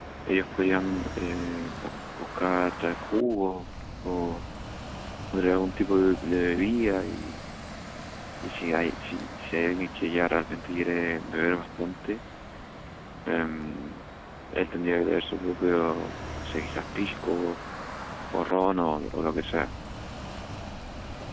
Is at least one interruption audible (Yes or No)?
No